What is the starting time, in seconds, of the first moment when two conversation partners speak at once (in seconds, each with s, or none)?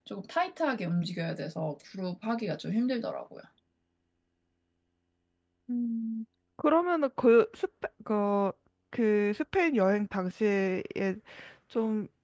none